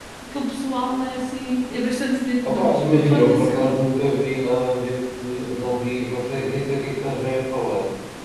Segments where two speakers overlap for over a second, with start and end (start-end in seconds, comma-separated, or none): 2.5-3.8